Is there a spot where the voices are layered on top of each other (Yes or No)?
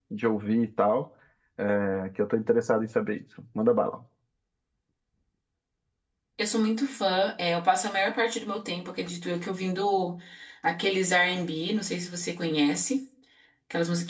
No